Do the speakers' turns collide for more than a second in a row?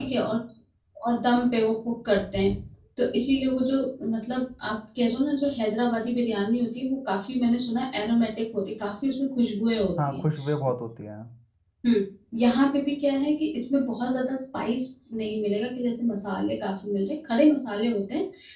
No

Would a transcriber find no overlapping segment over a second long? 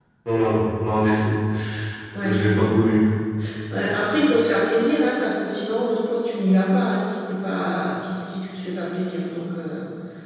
Yes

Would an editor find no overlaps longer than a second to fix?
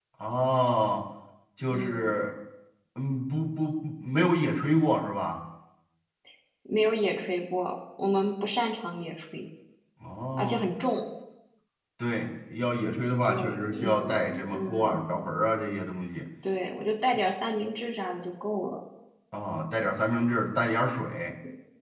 No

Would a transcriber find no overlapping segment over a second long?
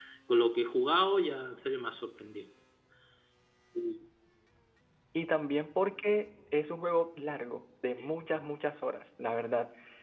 Yes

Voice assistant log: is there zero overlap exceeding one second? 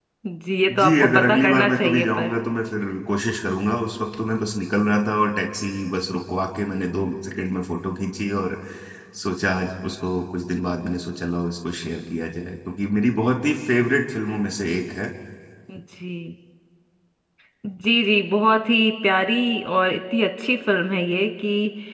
No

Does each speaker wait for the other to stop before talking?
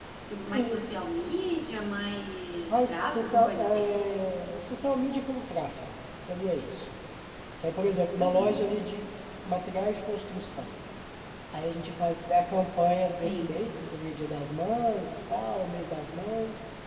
No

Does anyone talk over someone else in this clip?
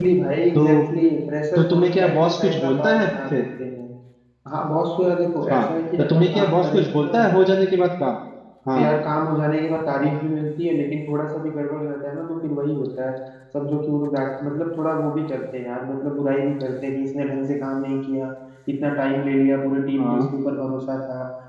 Yes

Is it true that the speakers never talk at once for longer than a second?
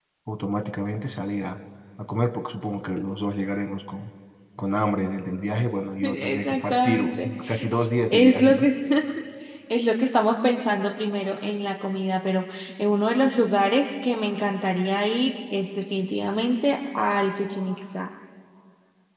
No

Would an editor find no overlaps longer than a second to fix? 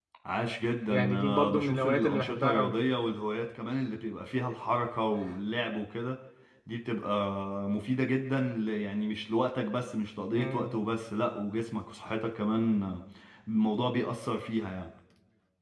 No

